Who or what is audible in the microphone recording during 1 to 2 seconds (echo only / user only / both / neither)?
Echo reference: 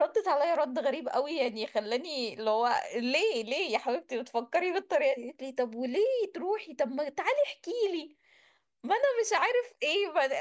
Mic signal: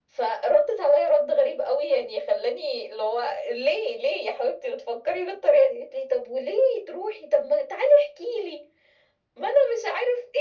echo only